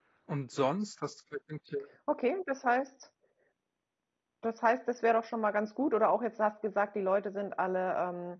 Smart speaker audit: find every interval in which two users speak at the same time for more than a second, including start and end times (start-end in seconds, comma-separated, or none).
none